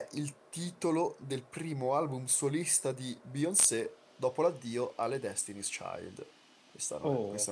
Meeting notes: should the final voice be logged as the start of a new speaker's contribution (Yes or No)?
Yes